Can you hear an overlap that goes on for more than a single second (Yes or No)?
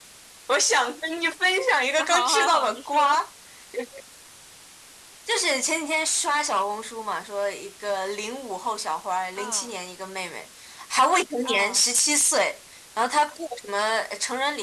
Yes